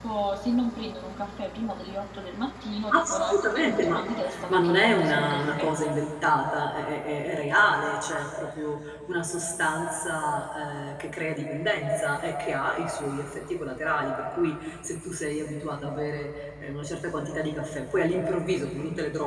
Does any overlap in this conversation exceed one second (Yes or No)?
Yes